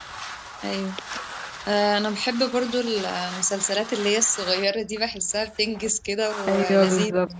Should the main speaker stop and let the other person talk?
Yes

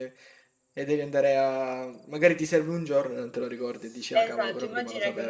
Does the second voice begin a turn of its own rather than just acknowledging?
Yes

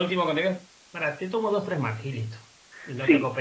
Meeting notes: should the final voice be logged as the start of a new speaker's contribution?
Yes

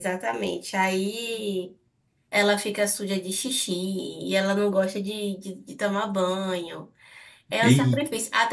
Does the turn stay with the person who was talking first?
Yes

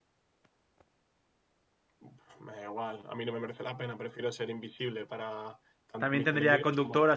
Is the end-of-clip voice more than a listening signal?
Yes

